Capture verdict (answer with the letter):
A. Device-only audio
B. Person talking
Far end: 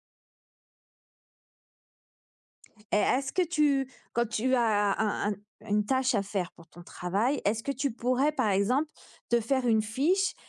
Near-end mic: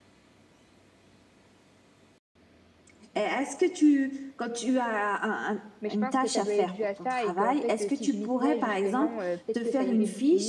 B